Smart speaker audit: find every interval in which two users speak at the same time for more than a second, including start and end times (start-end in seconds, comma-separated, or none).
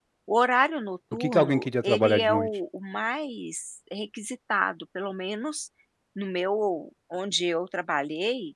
1.1-2.5